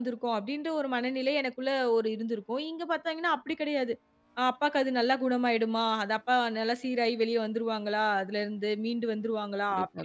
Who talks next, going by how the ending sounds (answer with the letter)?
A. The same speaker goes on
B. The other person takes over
A